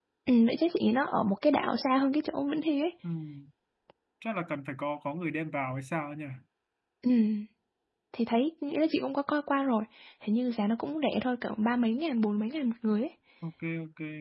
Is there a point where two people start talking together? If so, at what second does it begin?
none

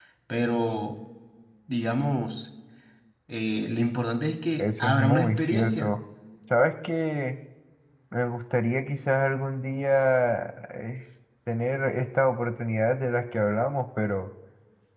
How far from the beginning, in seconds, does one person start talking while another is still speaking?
5 s

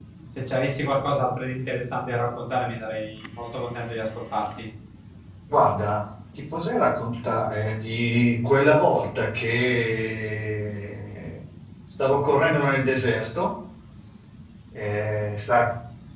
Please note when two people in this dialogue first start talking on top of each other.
none

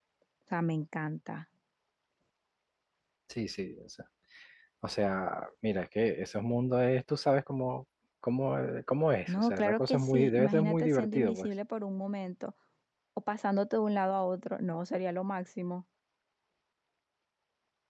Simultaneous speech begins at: 9 s

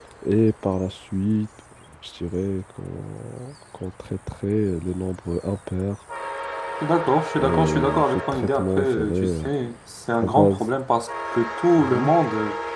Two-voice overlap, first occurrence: 7 s

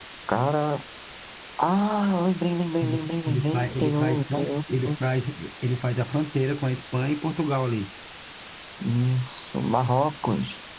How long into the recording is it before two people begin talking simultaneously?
3 s

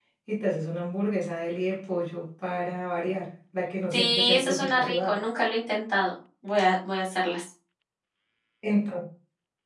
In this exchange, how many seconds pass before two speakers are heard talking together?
4 s

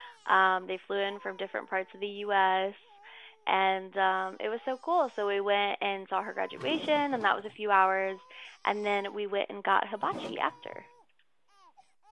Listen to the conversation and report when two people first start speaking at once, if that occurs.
none

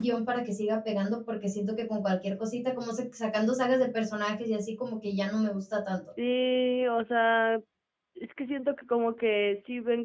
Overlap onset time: none

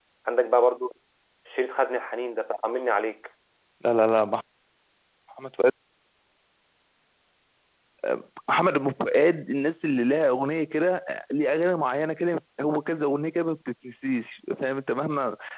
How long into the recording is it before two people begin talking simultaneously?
none

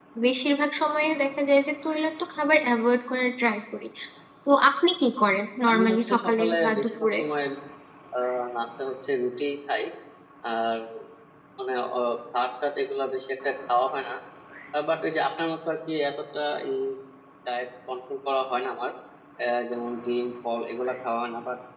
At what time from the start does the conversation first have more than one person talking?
6 s

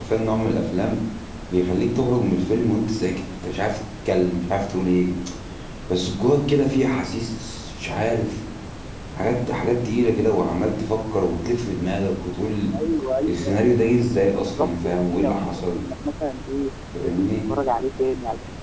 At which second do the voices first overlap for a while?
13 s

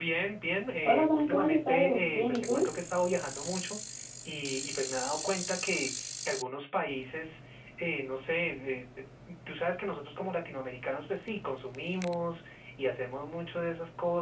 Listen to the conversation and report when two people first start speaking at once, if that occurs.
1 s

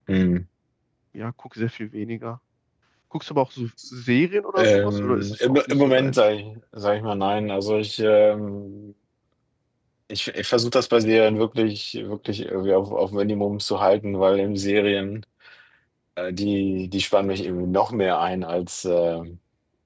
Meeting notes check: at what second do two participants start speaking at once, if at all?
5 s

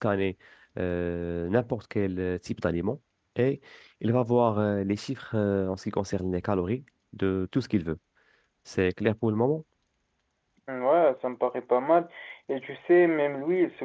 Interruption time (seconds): none

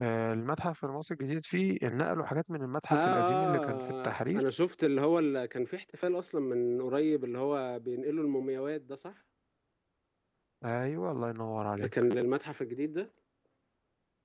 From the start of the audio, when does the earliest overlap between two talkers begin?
3 s

